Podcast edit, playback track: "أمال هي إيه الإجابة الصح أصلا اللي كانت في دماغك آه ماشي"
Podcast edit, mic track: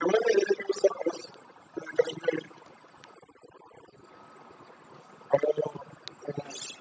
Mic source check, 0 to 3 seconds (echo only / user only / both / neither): echo only